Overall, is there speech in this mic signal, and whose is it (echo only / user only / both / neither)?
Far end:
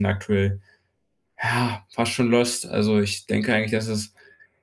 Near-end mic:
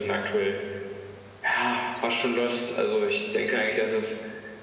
echo only